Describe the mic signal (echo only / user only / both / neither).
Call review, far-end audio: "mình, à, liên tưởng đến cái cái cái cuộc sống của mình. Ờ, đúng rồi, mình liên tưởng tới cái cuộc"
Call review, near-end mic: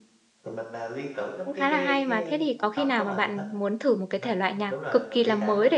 both